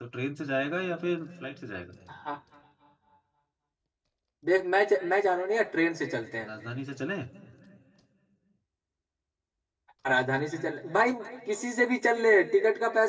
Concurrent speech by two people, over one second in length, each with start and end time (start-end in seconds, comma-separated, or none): none